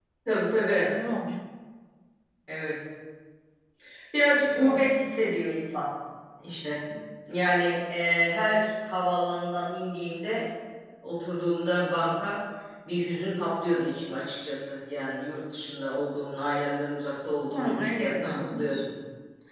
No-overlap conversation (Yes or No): No